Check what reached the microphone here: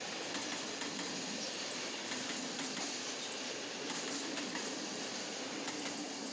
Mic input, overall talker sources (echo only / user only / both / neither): neither